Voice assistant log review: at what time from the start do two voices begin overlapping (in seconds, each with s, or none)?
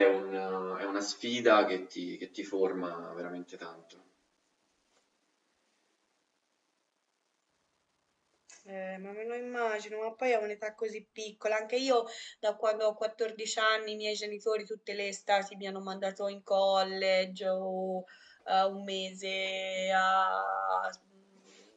none